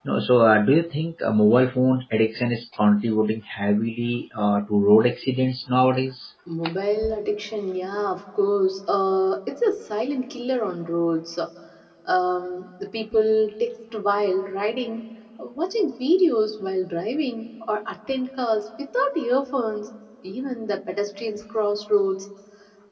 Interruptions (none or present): none